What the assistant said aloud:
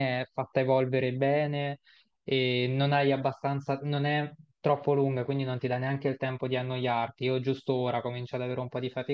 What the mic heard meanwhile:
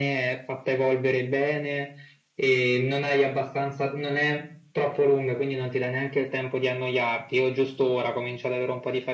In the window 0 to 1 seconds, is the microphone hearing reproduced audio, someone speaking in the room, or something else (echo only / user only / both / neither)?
echo only